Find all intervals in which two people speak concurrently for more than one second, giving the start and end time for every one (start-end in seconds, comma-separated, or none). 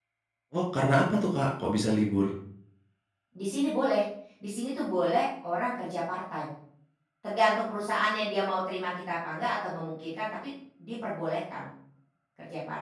none